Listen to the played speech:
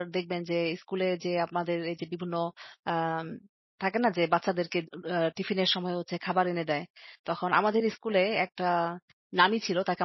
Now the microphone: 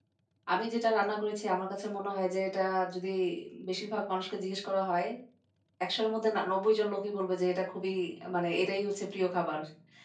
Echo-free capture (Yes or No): Yes